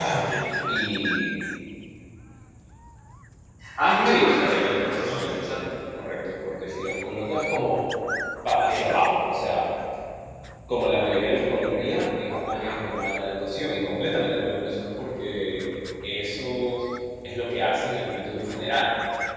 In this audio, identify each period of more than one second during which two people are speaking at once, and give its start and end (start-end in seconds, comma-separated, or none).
4.0-5.7